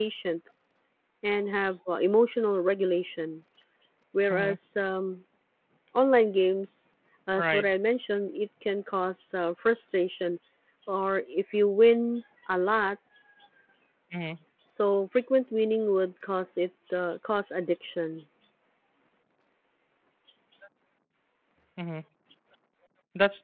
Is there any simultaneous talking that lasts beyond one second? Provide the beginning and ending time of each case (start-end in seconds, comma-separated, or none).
none